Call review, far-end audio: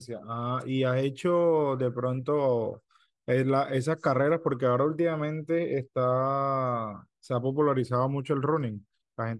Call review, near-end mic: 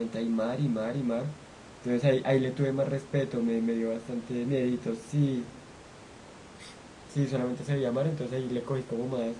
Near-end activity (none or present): present